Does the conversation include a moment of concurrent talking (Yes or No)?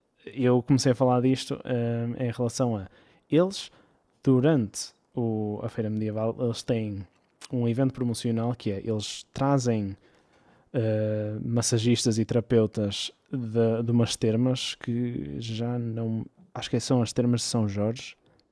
No